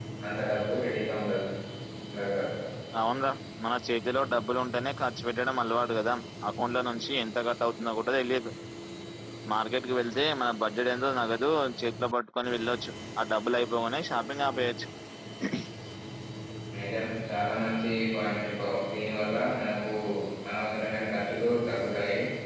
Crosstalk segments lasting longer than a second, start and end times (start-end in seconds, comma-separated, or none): none